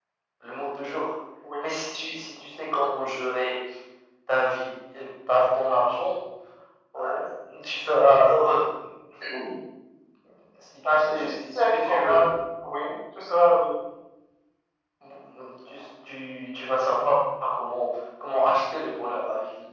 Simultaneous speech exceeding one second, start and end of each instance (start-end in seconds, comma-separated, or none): 10.9-12.2